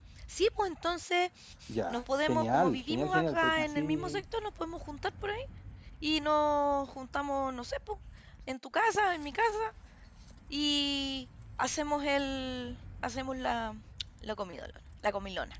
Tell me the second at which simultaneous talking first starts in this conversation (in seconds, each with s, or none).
1.9 s